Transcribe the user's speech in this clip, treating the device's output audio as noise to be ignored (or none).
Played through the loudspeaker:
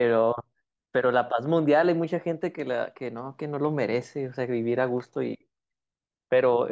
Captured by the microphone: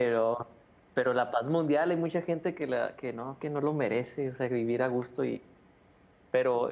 none